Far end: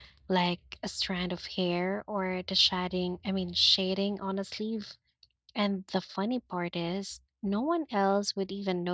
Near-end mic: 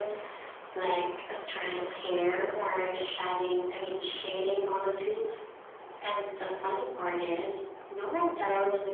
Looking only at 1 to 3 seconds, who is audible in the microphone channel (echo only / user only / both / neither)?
echo only